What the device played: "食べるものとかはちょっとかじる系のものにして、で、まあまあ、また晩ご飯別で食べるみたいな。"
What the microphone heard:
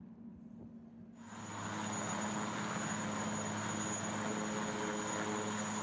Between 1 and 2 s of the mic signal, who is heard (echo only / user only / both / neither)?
neither